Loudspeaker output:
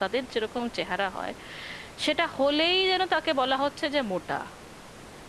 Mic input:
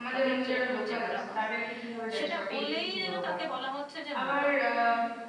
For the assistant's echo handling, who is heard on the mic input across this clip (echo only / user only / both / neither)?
both